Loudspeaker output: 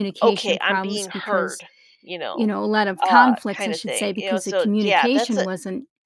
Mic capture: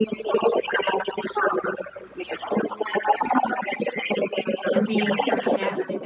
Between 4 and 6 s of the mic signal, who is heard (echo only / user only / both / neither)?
both